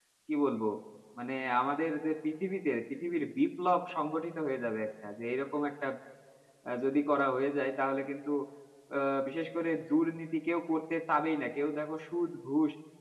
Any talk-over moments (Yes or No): No